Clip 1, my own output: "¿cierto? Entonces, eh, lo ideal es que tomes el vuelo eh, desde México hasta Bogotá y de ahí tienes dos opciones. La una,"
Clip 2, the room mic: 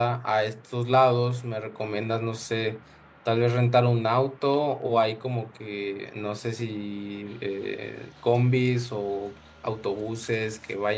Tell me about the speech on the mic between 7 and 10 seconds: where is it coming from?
user only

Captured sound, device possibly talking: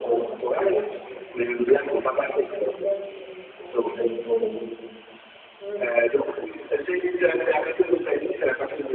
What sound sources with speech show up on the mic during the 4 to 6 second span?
both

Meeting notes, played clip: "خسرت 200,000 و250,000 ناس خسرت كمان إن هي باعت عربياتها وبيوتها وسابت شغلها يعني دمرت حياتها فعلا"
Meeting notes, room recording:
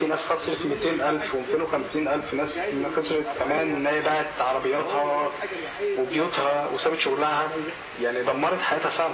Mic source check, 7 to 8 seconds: both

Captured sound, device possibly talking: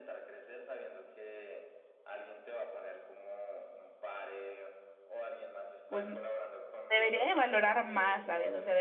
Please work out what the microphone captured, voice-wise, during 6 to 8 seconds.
both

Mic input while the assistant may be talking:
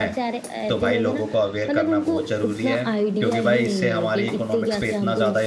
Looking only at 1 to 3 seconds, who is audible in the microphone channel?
both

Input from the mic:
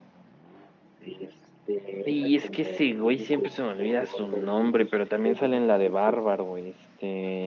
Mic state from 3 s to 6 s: both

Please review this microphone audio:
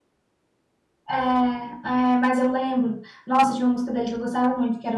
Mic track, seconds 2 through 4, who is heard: user only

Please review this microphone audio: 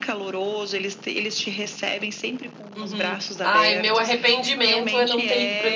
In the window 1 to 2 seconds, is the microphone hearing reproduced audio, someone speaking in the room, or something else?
echo only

